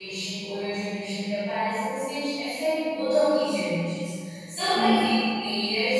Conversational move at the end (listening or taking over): listening